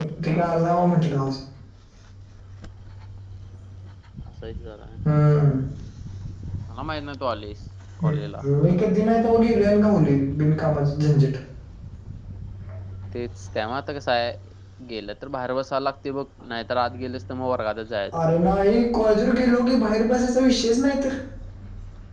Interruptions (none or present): none